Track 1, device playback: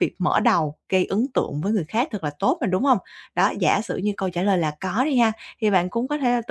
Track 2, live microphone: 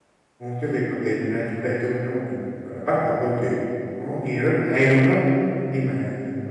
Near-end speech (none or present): present